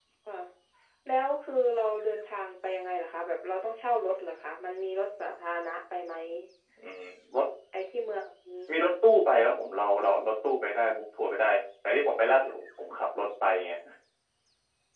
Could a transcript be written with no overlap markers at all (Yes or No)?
Yes